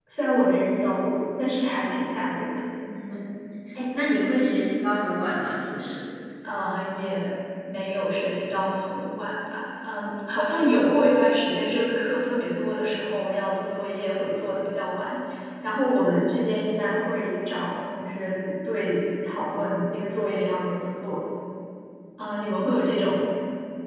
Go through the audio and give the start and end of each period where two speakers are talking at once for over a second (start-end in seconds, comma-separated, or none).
none